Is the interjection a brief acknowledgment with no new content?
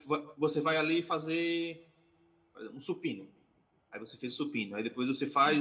Yes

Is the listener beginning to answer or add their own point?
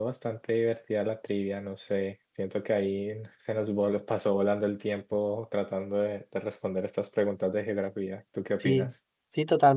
Yes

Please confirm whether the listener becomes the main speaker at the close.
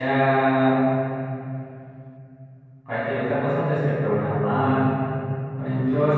No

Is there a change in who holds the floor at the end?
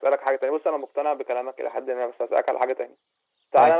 No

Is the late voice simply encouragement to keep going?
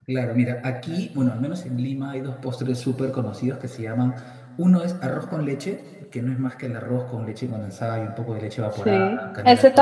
No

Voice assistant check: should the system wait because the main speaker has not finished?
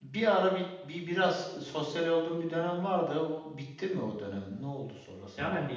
No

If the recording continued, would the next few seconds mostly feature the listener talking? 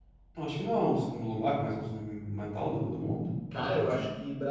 Yes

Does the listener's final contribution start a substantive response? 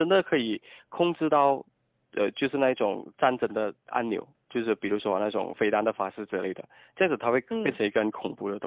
No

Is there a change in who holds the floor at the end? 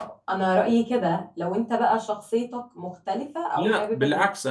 Yes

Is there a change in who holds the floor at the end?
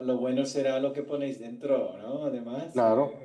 Yes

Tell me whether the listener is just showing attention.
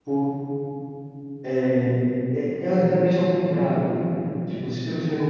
Yes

